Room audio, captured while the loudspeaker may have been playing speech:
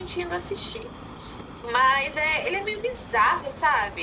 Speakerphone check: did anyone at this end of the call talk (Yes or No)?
No